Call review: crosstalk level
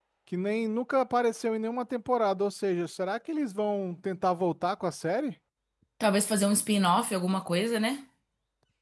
none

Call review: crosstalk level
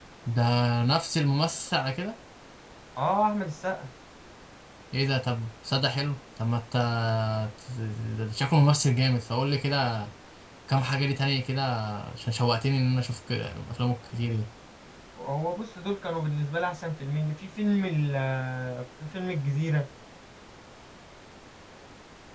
none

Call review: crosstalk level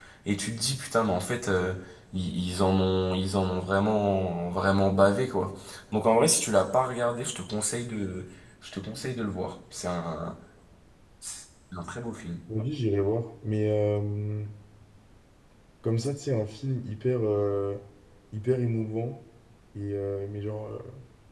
none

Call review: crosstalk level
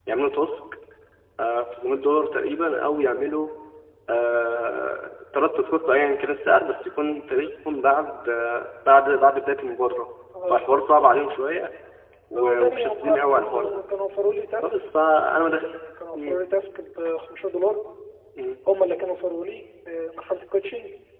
present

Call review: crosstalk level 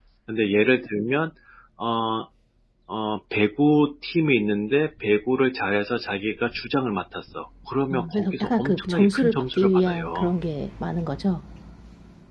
present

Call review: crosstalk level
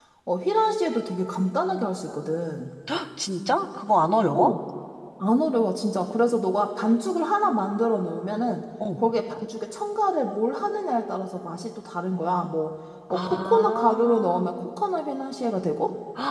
present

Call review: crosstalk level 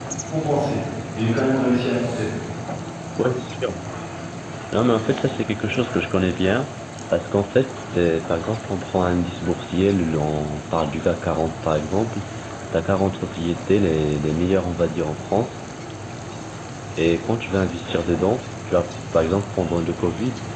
none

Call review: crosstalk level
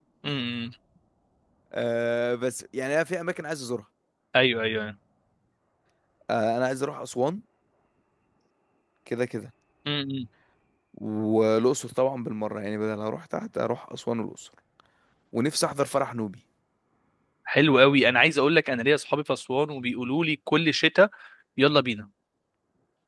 none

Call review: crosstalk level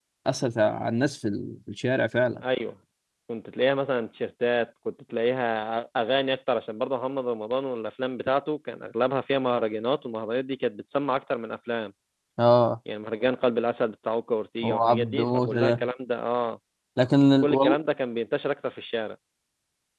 present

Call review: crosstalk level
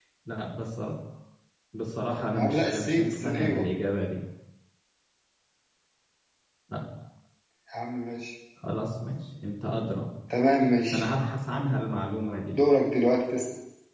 present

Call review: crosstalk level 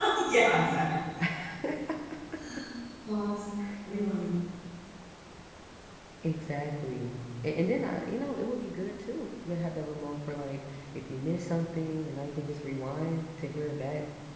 none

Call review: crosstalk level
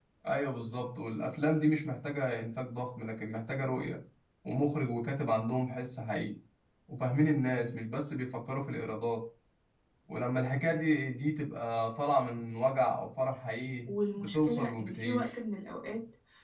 present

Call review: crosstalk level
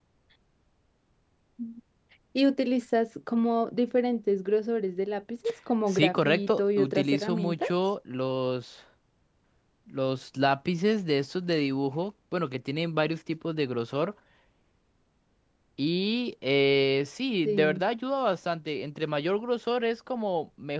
present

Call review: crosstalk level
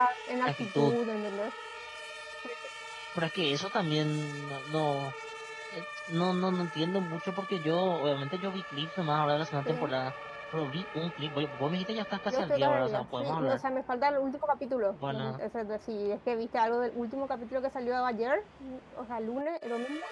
present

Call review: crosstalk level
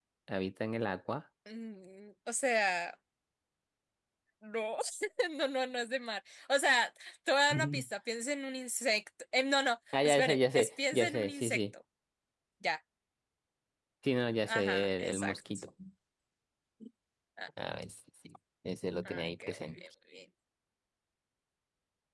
present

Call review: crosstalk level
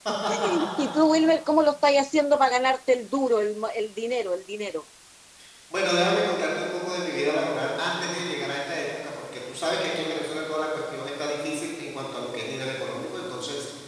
none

